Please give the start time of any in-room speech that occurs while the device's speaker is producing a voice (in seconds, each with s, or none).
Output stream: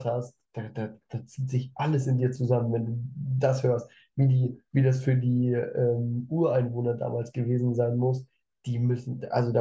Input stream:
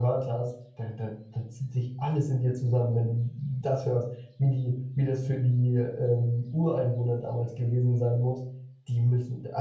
none